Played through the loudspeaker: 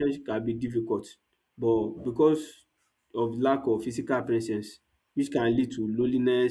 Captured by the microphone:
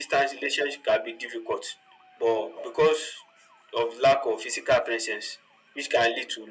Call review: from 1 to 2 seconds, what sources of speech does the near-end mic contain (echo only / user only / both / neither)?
echo only